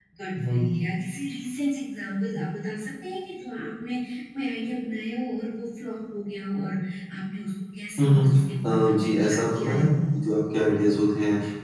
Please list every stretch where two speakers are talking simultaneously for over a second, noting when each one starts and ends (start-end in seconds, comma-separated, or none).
8.7-9.9